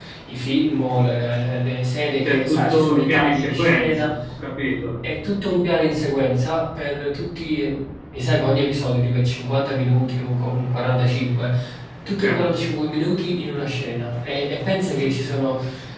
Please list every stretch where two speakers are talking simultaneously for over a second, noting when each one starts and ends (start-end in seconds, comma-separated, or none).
2.2-4.1